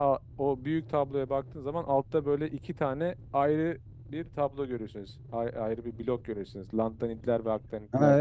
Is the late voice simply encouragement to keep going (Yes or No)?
No